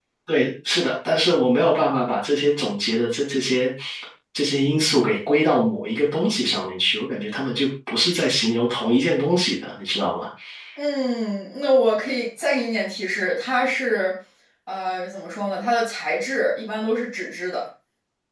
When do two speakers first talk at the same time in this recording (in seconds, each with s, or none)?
none